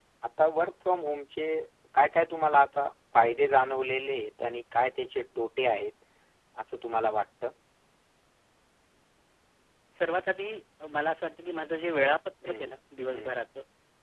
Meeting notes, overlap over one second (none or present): none